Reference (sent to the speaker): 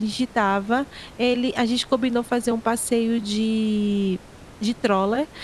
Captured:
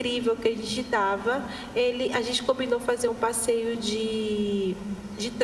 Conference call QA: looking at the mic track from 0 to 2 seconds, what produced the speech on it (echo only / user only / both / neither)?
echo only